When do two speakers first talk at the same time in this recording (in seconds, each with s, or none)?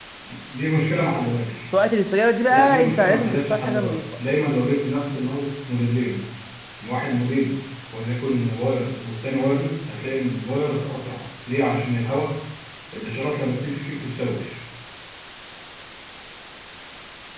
2.5 s